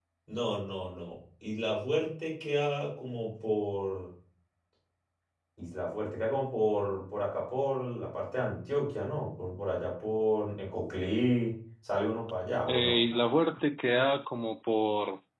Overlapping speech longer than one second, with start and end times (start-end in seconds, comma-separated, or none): none